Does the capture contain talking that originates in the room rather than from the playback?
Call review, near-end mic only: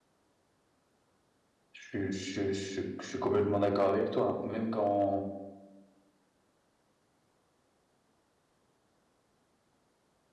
Yes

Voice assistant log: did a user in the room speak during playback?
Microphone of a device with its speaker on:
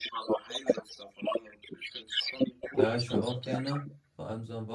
Yes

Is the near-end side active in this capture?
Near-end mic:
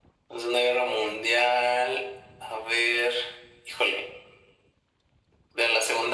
No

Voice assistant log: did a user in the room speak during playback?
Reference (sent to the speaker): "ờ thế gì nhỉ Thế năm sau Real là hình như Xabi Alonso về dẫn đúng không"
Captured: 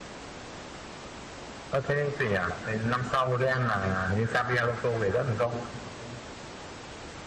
No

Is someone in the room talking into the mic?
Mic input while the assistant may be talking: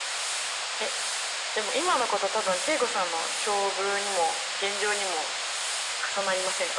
No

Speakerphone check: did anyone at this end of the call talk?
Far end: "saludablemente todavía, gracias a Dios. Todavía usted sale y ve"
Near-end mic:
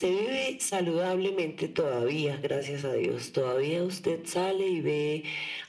No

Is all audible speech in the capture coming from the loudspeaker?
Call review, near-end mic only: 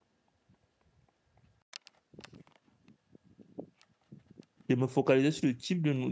No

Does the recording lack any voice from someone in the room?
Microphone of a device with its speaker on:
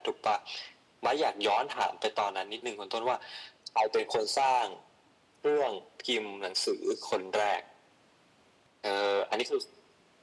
Yes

